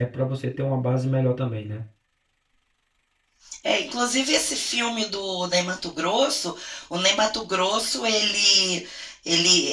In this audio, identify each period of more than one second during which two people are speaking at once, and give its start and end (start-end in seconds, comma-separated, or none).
none